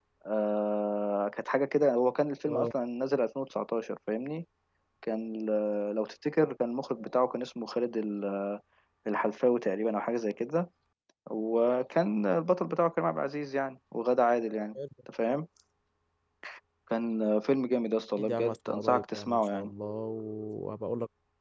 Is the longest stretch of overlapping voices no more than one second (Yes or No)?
No